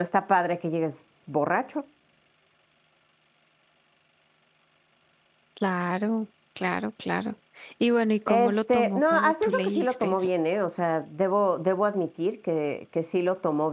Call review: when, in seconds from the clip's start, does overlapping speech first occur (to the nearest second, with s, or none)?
8 s